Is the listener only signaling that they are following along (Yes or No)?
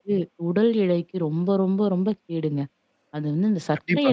Yes